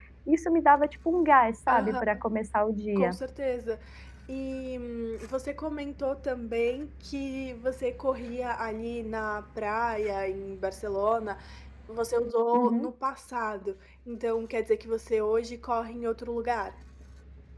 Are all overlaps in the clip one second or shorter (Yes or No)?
Yes